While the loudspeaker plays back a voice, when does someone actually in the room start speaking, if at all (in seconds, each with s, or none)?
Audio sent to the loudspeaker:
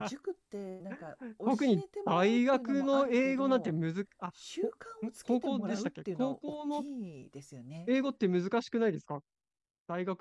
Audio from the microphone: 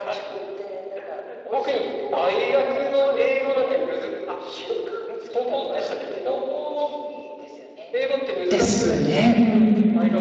8.5 s